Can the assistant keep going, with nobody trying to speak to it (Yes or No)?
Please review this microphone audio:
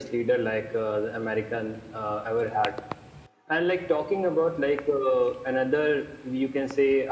Yes